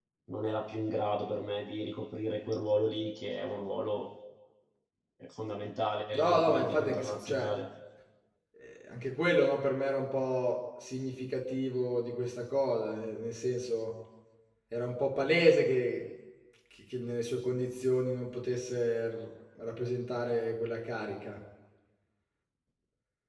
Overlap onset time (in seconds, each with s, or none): 6.2 s